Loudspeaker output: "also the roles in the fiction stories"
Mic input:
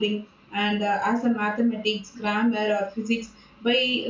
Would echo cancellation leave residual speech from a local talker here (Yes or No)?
Yes